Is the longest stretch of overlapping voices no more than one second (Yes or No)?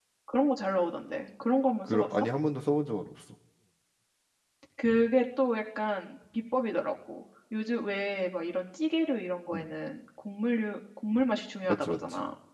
Yes